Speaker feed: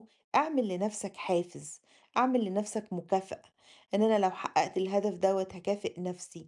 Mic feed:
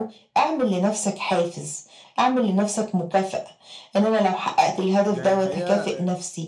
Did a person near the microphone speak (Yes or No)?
Yes